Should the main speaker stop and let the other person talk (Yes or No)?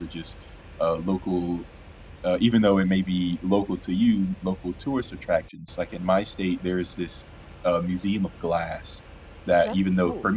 No